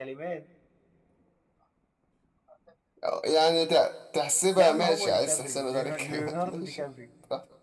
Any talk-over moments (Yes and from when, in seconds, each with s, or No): Yes, from 4.5 s